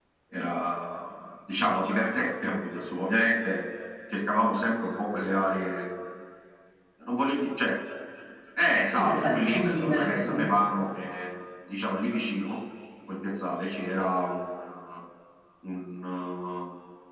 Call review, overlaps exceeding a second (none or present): present